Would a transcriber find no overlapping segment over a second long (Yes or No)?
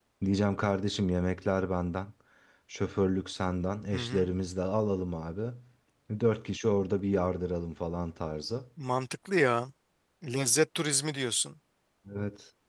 Yes